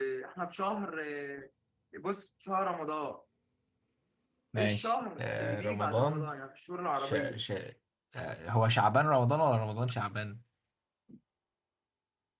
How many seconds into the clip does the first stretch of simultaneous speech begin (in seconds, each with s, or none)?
4.6 s